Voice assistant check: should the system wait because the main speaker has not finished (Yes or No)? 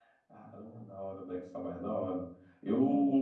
Yes